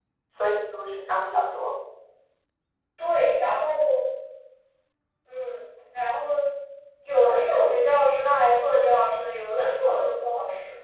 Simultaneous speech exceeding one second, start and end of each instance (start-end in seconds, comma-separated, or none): none